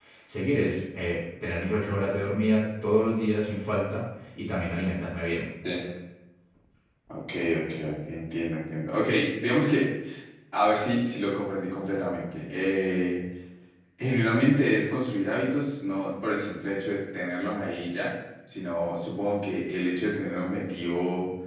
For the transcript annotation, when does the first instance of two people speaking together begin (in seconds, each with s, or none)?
none